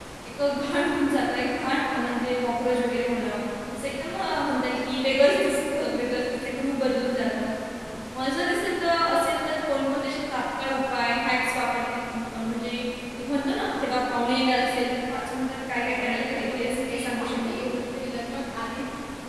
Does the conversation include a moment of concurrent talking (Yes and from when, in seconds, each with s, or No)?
Yes, from 15.8 s